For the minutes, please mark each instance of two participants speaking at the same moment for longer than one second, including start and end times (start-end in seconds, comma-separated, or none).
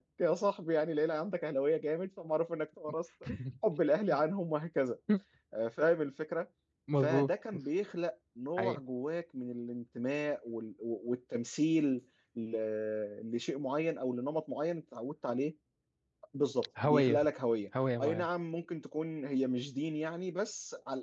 none